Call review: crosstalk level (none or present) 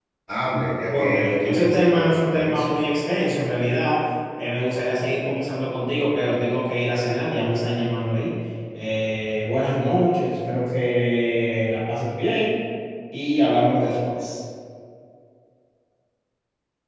present